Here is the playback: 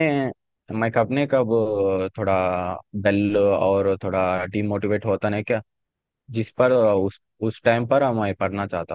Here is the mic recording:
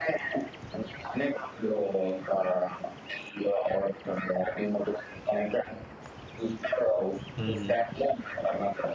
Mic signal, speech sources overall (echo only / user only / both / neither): both